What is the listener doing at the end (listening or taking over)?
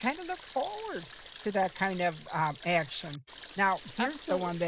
listening